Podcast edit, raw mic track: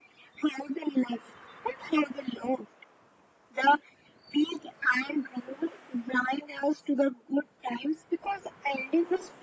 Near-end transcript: none

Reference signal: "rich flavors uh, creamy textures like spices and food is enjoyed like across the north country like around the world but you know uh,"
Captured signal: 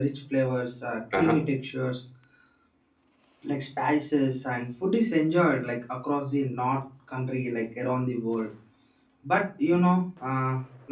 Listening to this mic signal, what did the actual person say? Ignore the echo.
uh

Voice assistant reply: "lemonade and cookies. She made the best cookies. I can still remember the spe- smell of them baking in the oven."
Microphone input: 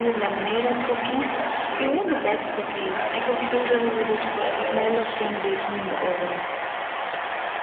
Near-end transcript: That's really nice. Do you have any brother or sister?

